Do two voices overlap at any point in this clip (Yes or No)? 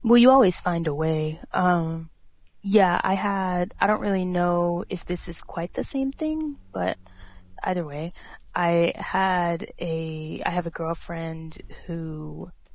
No